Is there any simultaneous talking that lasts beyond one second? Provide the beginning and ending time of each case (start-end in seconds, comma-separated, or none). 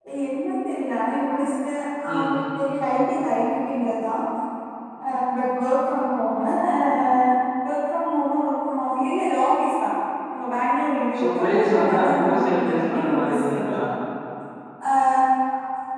11.2-13.8